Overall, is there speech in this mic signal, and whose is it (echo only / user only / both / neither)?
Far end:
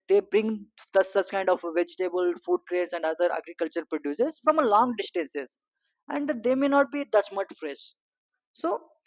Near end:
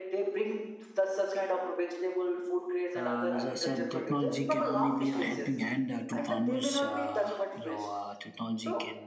both